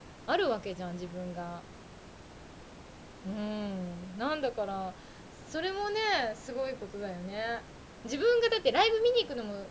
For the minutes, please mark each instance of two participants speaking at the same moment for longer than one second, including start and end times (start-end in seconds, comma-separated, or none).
none